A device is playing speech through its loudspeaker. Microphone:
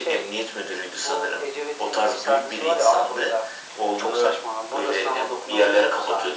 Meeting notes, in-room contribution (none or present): none